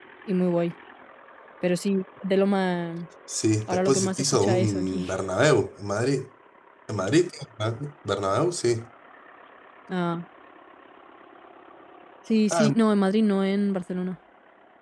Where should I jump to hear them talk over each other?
4 s

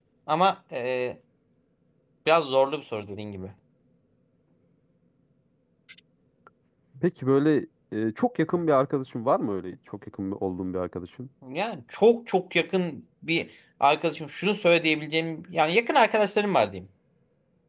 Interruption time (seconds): none

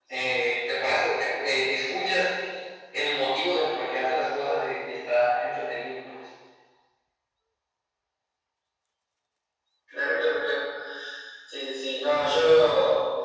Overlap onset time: none

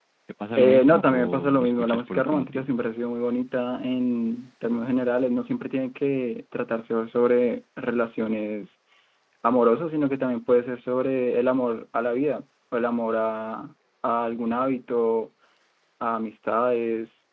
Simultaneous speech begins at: 1 s

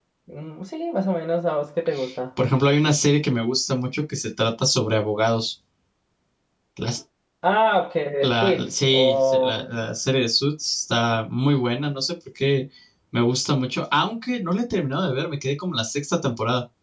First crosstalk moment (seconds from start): 8 s

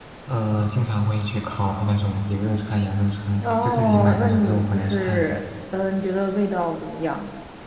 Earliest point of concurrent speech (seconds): 3 s

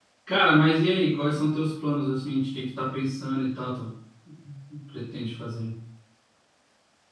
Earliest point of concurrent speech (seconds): none

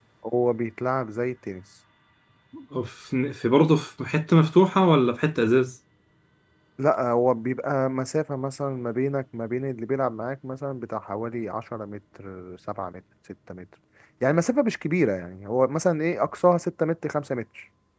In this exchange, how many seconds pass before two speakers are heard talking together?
none

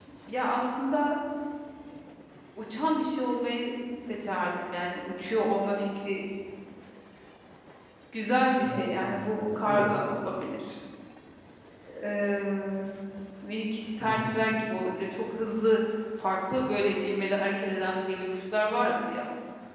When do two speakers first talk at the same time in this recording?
8 s

